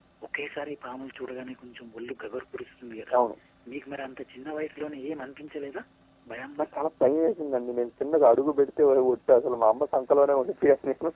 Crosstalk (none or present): none